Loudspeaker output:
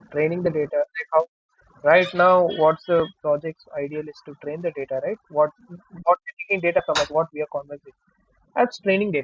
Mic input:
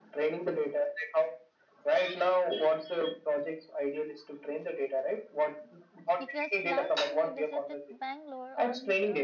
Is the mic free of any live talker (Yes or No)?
No